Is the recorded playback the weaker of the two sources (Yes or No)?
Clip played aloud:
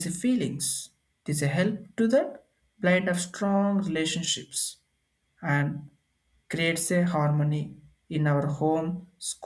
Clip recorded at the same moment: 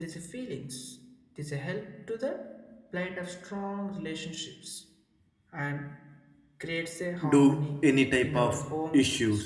Yes